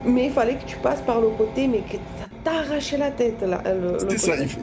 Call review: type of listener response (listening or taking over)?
taking over